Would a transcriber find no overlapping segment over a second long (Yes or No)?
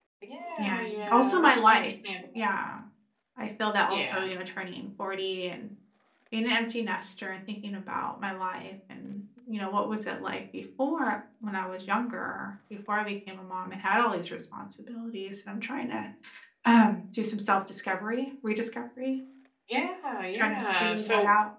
No